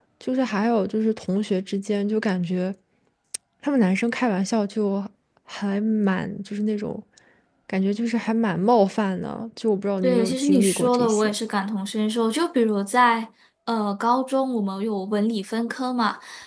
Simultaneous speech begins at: 10.0 s

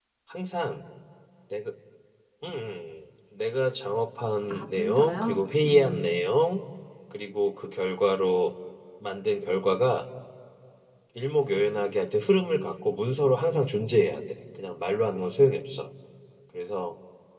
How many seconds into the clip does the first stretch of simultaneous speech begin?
4.5 s

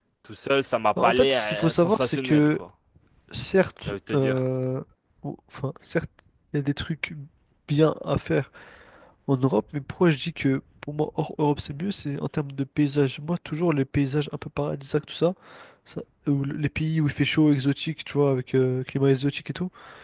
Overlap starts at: 1.0 s

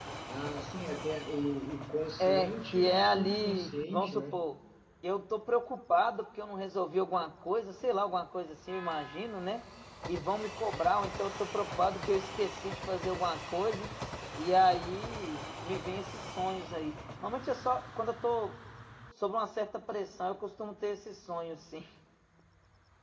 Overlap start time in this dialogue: 2.2 s

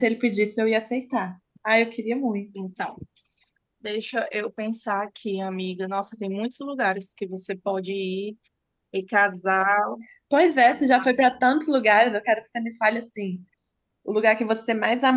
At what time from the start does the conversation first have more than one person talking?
none

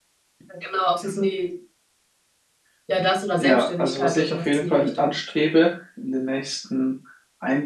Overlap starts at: 3.4 s

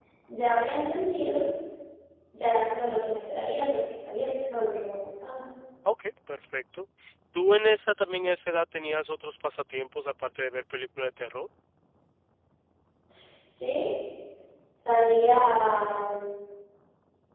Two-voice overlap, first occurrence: none

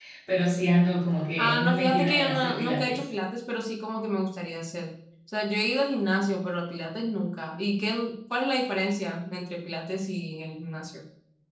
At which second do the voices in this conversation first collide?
1.4 s

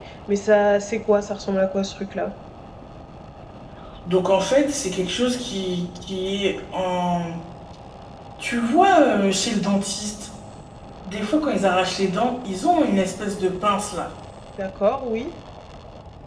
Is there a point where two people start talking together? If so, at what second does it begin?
none

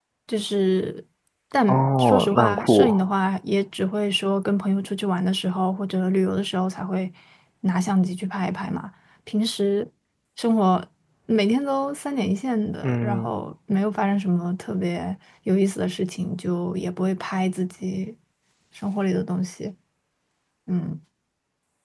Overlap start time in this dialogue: 1.7 s

